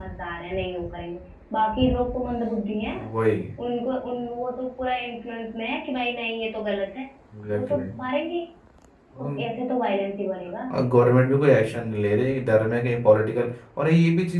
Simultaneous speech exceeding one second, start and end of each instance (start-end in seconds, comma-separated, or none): none